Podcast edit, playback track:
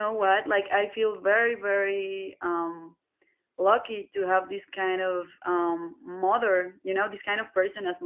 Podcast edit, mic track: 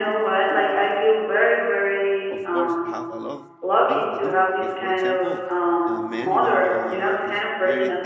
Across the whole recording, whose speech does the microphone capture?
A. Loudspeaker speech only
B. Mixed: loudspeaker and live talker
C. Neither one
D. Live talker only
B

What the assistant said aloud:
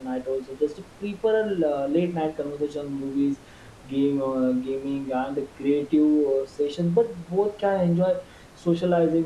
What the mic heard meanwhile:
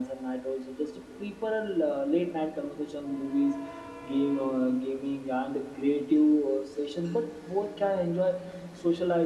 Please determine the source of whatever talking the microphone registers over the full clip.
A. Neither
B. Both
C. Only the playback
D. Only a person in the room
C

